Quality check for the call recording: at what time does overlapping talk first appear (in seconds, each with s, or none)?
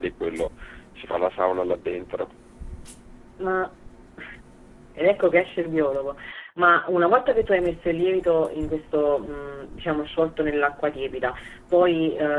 none